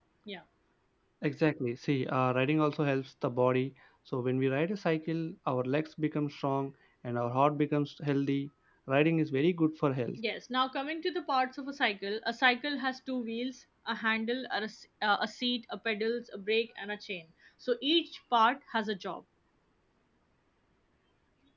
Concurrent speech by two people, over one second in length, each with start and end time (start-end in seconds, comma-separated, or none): none